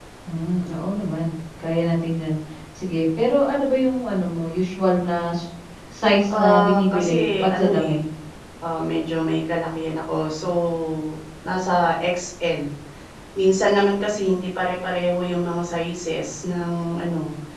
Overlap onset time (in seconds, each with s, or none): 6.3 s